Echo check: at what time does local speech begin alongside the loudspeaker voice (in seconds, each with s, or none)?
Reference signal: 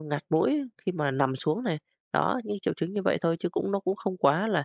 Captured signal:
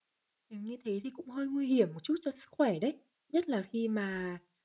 0.5 s